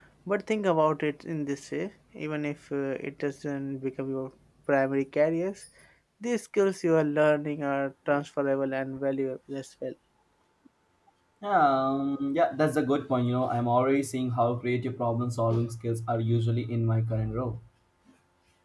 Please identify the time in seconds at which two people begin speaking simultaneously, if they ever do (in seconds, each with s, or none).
none